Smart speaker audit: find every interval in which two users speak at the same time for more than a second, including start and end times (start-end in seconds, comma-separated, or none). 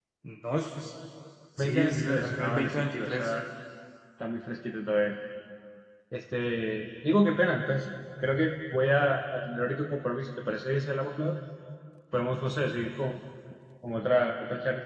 1.6-3.3